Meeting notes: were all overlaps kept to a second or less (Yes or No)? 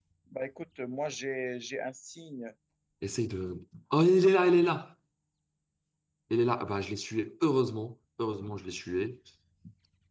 Yes